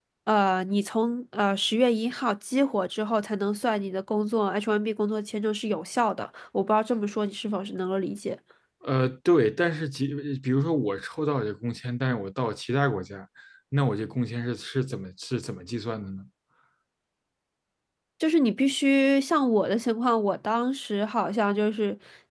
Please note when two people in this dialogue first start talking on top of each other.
none

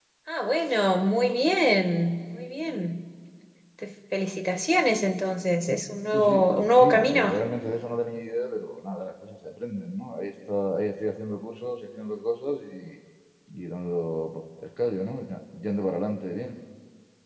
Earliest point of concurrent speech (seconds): 6 s

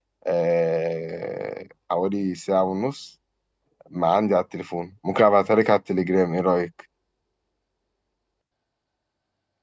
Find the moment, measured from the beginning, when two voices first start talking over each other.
none

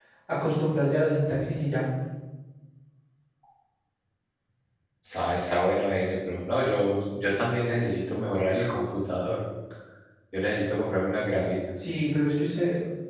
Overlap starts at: none

